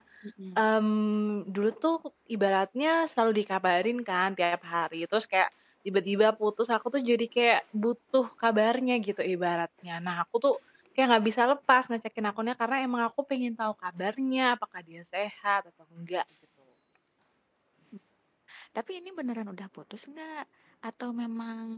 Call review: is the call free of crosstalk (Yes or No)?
Yes